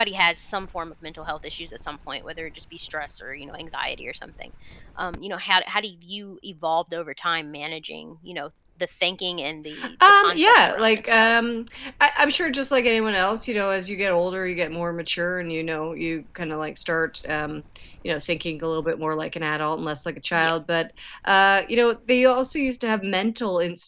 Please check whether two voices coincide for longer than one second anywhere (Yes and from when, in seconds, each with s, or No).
Yes, from 9.7 s